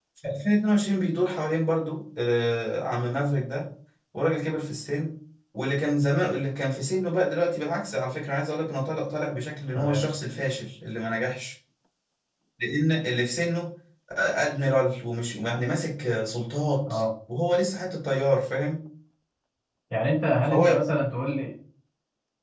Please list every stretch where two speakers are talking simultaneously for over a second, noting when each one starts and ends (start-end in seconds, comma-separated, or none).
none